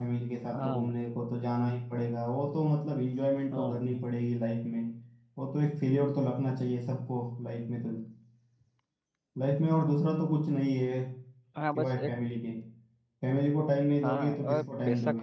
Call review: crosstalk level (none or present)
present